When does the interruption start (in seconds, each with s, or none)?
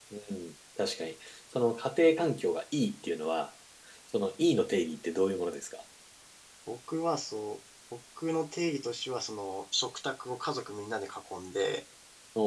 none